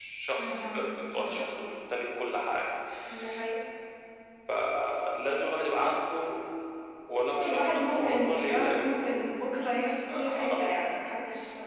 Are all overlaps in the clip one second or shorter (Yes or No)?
No